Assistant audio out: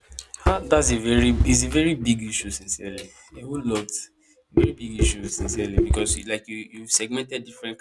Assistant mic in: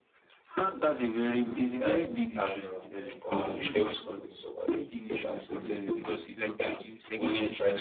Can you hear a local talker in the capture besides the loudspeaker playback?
Yes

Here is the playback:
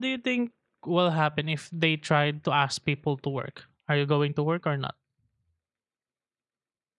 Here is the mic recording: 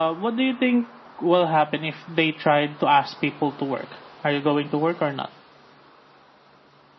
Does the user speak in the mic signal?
No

